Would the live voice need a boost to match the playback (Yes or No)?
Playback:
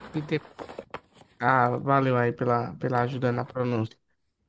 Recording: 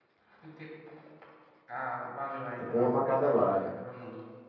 No